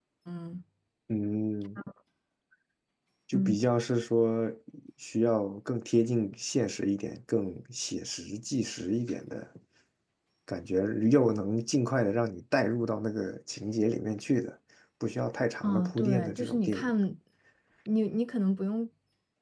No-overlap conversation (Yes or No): No